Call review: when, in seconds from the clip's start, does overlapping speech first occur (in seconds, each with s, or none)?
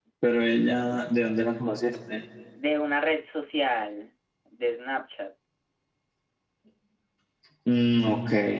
none